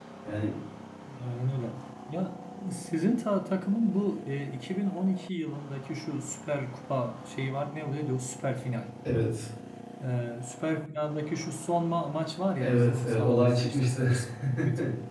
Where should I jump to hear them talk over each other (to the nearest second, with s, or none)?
13 s